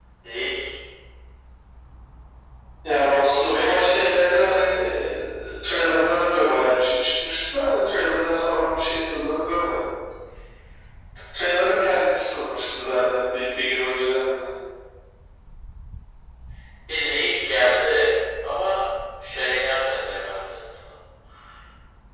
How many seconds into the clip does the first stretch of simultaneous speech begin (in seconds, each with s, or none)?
3.4 s